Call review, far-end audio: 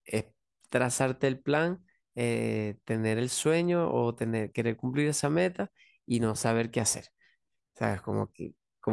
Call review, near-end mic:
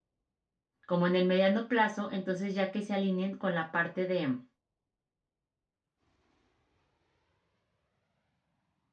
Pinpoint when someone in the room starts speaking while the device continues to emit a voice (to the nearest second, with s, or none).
1 s